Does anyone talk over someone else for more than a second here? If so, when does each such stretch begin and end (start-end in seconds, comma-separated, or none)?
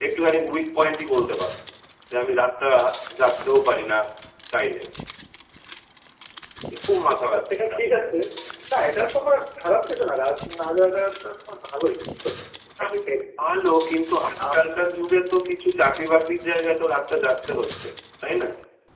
none